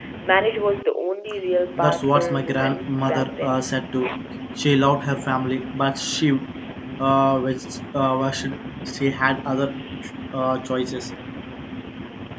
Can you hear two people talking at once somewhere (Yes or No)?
Yes